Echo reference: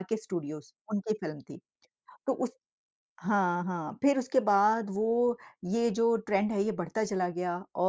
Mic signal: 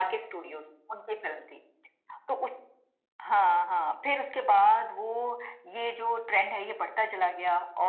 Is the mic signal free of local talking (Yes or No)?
Yes